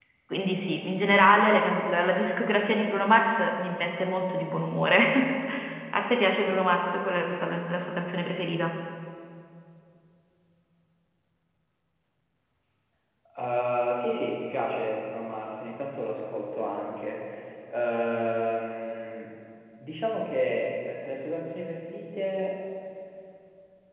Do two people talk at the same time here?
No

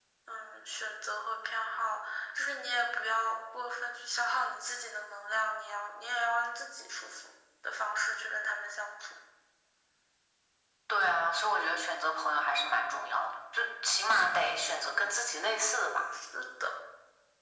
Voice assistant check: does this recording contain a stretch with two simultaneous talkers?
No

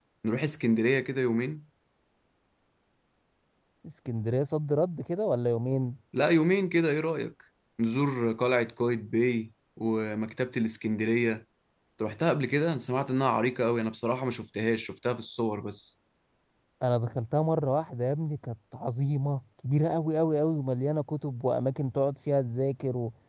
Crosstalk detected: No

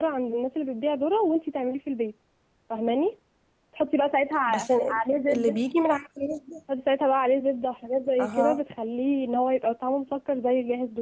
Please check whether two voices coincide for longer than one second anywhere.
No

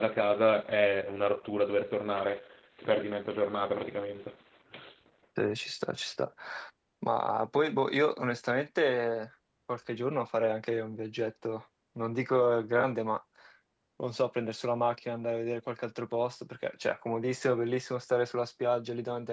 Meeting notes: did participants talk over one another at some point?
No

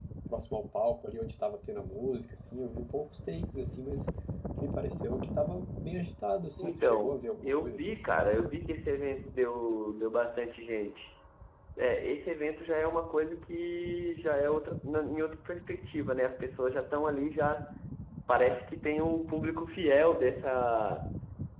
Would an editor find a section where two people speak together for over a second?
Yes, from 6.6 s

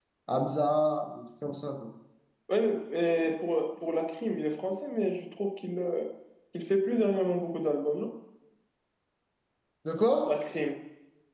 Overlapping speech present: No

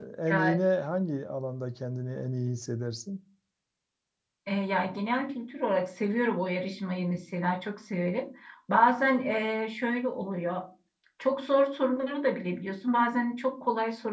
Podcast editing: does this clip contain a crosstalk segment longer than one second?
No

